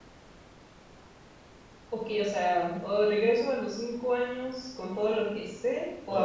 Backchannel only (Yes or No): No